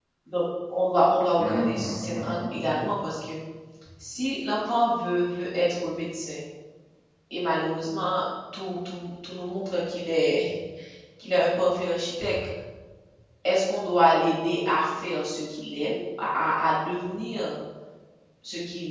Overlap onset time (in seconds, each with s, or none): 1.4 s